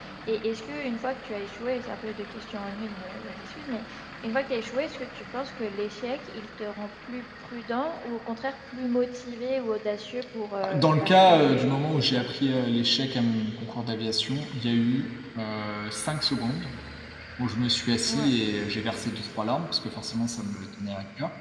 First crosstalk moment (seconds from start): 10.6 s

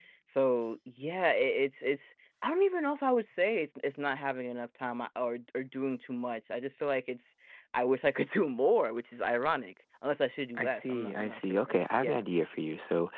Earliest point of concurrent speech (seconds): 10.6 s

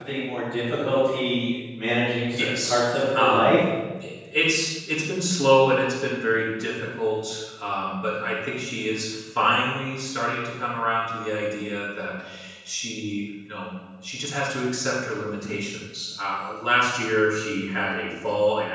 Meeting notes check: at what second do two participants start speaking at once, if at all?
2.3 s

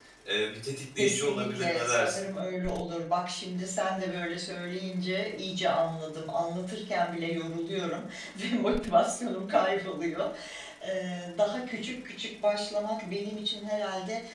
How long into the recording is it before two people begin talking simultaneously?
1.0 s

